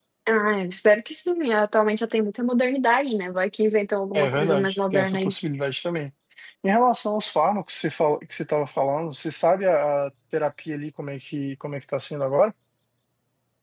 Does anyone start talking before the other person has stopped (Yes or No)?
Yes